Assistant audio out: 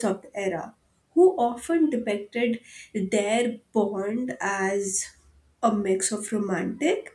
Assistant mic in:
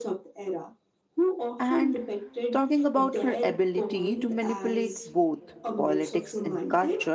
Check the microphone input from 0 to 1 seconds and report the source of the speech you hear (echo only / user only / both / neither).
echo only